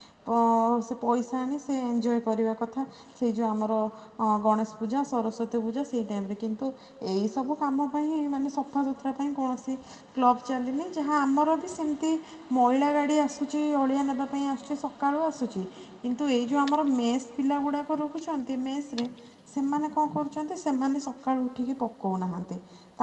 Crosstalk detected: No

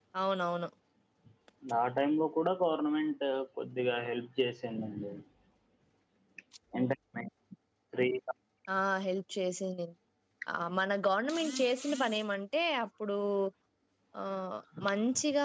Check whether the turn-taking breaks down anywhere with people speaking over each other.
No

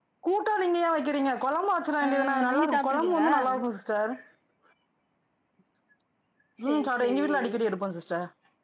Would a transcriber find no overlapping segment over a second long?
No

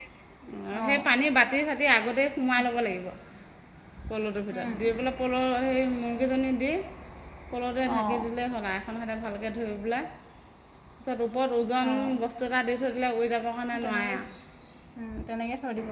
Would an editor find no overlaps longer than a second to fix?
Yes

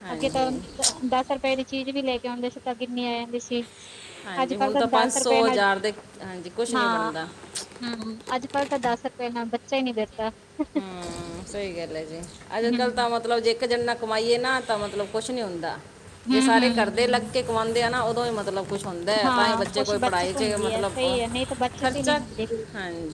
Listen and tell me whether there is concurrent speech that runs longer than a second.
Yes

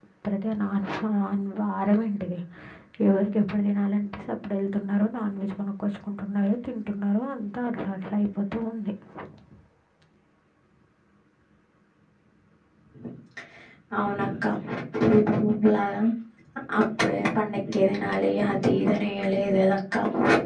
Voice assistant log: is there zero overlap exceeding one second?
Yes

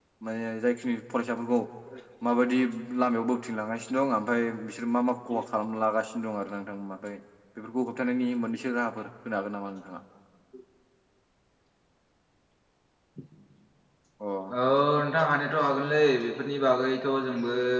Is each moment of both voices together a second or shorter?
Yes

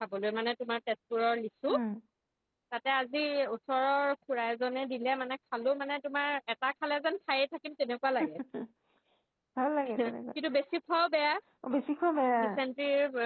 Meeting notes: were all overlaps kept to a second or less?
Yes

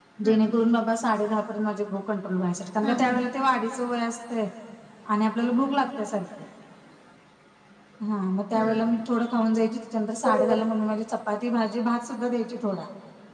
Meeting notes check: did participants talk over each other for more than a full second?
No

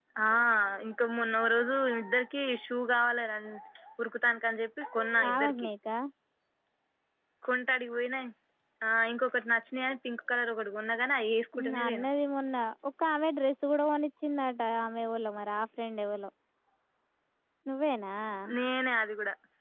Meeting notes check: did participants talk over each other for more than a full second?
No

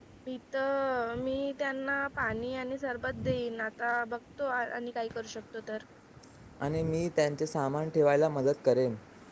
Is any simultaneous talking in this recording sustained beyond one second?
No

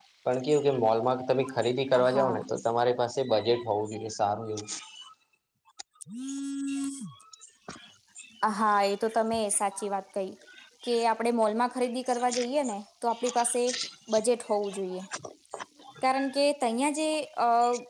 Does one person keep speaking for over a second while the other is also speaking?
No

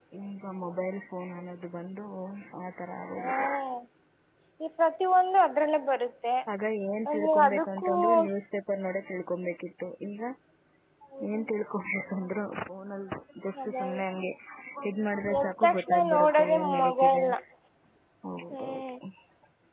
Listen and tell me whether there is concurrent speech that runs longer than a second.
Yes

